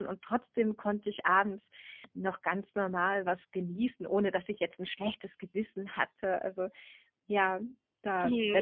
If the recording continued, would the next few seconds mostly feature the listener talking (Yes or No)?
Yes